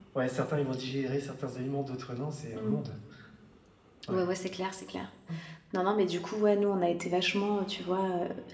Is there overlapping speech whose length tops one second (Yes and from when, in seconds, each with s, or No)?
No